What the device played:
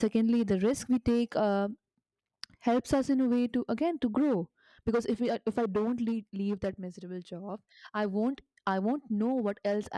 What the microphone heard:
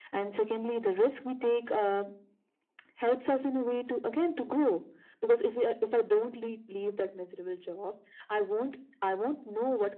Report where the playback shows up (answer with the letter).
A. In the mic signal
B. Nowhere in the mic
A